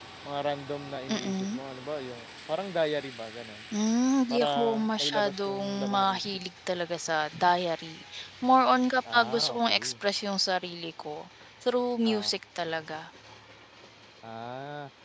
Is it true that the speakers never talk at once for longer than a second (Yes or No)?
No